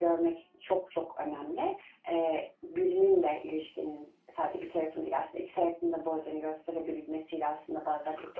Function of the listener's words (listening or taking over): listening